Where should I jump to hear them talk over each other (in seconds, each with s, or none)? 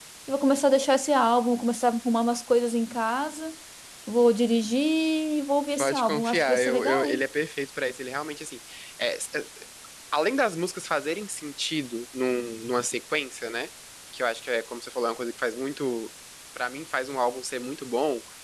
5.8 s